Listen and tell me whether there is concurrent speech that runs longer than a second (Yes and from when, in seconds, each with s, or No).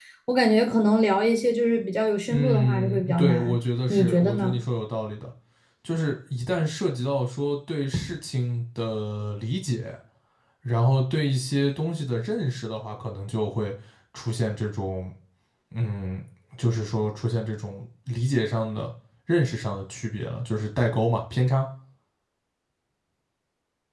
Yes, from 2.3 s